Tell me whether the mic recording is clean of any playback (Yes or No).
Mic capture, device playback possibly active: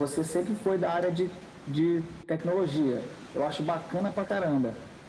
No